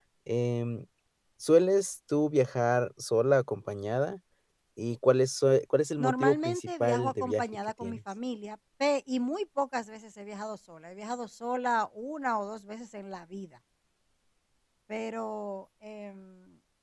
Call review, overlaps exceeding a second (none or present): present